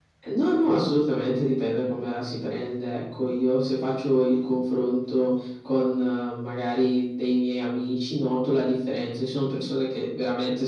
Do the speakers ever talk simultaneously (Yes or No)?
No